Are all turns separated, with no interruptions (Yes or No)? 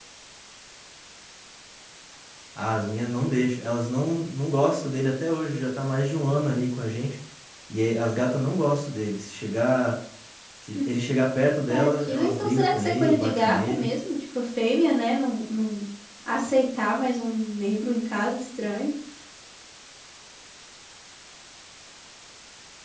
No